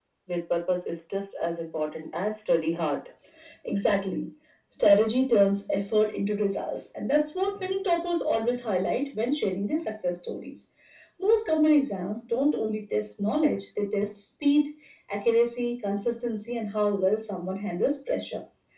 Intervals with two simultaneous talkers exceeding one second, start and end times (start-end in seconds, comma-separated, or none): none